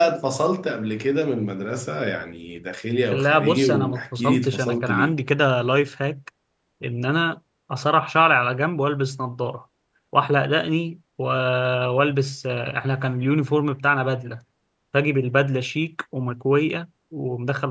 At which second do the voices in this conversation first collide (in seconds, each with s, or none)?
3.1 s